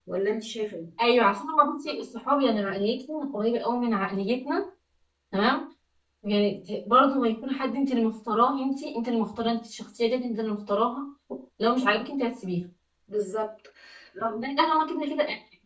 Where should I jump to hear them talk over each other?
none

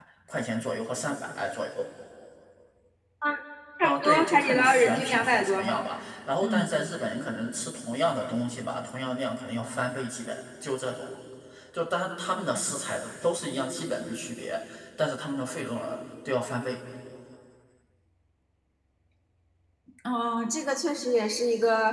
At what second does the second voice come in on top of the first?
3.8 s

